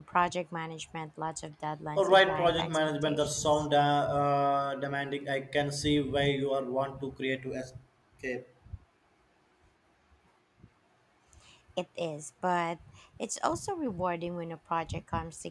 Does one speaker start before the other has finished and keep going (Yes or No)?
Yes